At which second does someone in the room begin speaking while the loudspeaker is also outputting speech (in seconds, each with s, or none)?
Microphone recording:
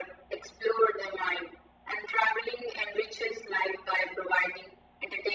none